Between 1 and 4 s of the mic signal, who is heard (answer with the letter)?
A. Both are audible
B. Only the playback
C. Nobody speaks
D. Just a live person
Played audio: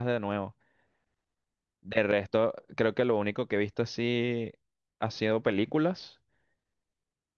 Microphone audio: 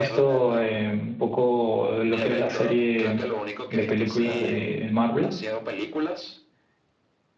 A